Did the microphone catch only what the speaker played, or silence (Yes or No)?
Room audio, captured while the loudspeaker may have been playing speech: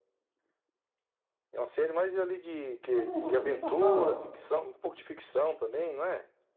No